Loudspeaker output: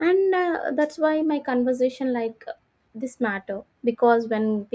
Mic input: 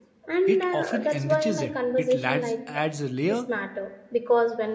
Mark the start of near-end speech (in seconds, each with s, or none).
0.5 s